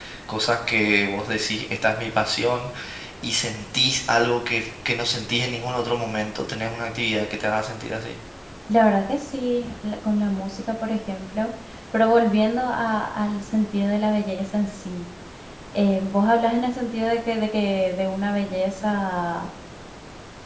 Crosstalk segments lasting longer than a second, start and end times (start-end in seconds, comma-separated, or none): none